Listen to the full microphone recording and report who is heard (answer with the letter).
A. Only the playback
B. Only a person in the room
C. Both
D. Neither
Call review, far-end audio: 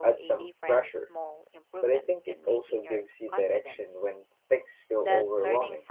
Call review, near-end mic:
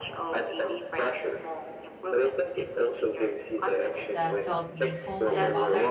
C